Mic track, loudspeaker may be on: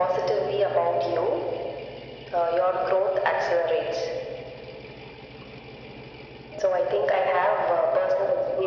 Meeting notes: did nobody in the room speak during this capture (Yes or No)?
Yes